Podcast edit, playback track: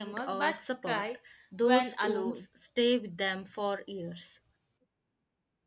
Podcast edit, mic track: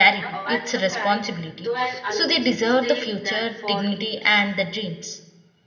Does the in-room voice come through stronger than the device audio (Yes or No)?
Yes